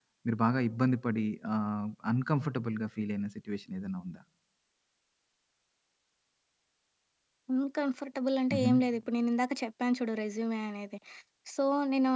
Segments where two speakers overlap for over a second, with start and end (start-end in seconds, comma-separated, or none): none